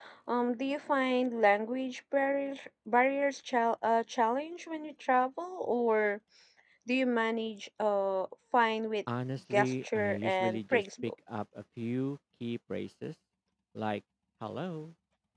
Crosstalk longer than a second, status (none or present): present